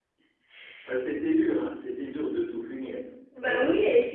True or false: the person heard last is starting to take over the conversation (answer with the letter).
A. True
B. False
A